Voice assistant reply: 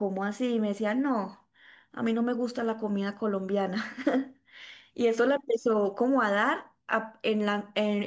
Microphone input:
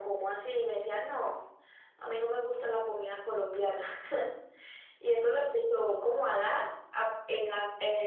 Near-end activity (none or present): none